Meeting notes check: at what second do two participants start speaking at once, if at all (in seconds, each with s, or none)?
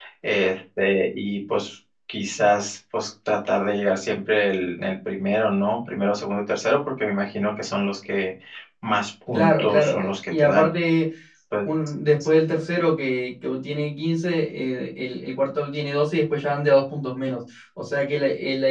9.3 s